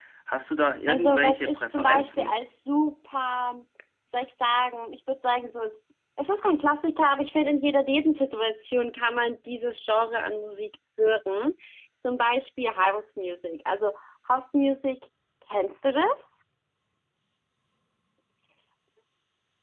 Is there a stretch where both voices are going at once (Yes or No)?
Yes